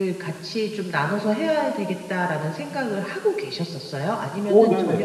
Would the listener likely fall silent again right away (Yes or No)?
No